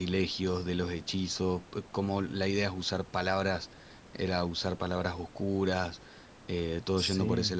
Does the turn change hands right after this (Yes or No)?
No